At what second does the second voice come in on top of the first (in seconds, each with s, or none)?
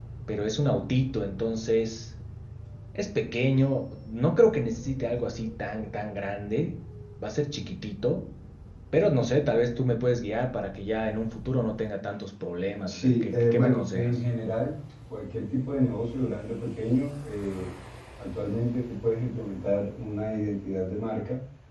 12.9 s